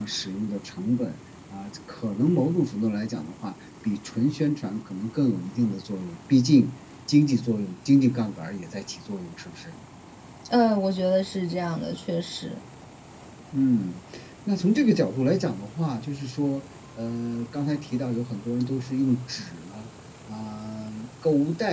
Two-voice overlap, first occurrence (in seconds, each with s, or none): none